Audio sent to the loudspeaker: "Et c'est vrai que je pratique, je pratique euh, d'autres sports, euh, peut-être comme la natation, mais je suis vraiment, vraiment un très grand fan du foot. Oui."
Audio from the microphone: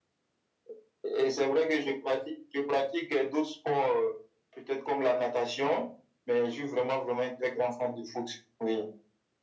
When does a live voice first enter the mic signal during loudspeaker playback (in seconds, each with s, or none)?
none